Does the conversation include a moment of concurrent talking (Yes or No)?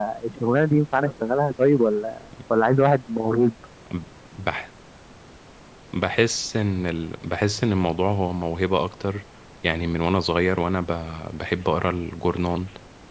No